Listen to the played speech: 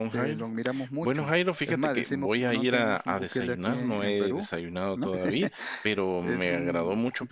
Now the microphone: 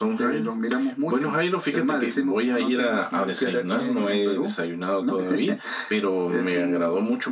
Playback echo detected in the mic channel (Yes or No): Yes